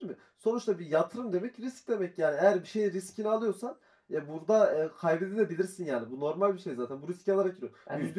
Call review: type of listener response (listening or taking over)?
listening